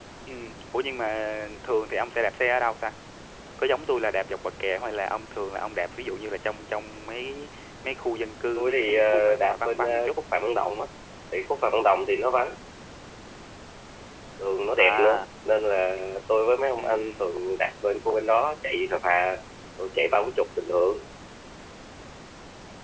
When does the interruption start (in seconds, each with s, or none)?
8.6 s